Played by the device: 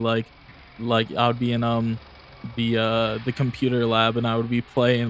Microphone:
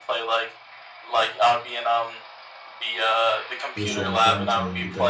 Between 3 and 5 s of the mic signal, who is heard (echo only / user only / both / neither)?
both